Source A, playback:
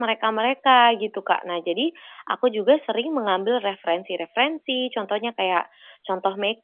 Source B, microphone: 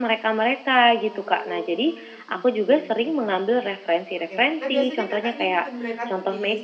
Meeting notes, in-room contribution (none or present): present